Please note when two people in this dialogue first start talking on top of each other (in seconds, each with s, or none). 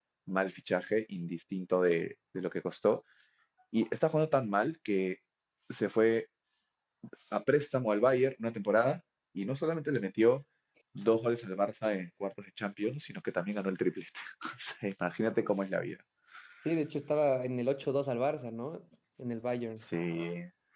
none